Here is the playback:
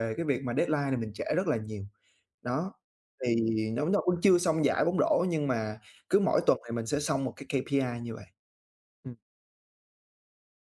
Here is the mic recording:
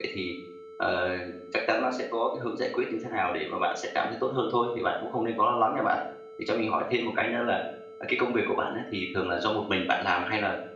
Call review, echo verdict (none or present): none